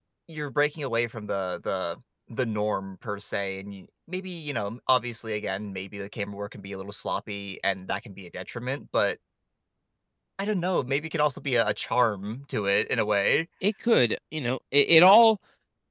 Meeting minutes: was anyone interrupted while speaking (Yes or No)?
No